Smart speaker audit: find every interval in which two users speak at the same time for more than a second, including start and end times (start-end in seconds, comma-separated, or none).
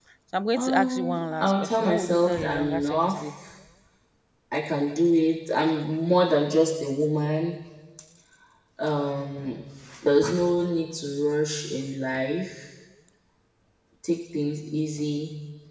0.6-3.2